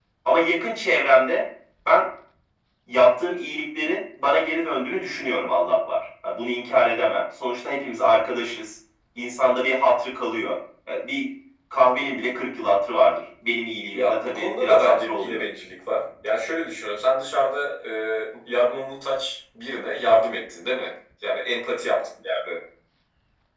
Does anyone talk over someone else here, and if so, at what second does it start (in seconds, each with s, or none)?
13.9 s